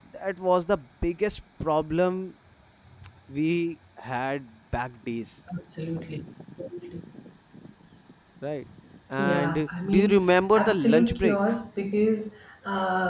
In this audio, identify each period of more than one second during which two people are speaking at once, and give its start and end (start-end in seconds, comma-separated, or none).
9.2-11.4